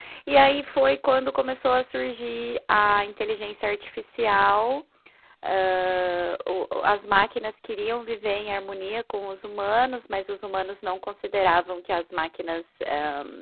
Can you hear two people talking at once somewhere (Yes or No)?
No